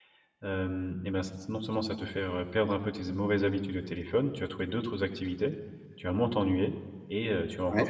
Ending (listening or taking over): listening